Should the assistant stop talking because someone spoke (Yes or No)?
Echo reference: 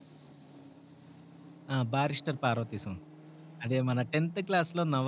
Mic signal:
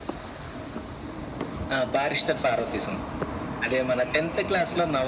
No